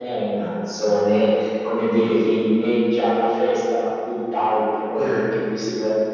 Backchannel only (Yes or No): Yes